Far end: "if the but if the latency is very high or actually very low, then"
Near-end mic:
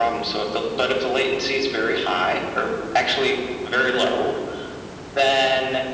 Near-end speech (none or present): none